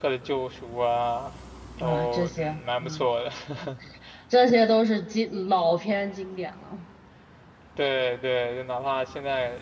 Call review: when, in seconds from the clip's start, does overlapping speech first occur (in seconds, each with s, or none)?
1.8 s